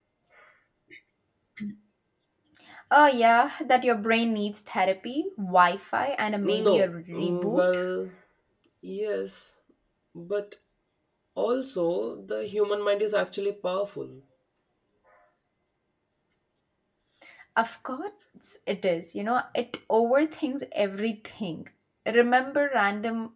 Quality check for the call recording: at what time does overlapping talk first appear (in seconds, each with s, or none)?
6.4 s